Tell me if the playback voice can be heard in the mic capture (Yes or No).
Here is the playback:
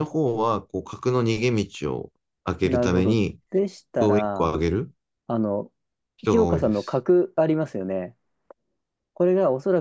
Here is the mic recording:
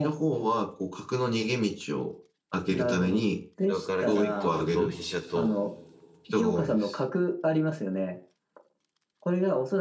Yes